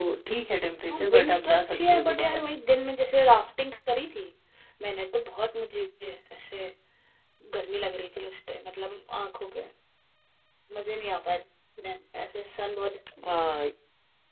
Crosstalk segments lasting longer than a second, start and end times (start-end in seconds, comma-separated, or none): 0.9-2.4